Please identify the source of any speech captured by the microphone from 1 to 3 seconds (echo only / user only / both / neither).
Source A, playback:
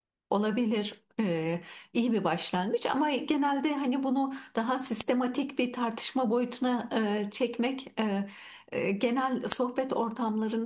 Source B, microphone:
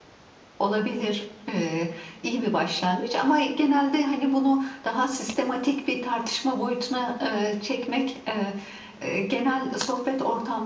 echo only